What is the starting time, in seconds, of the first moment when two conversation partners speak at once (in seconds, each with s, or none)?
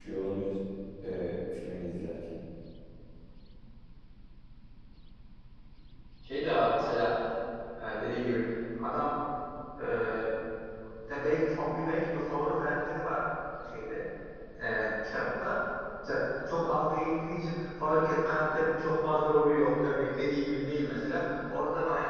none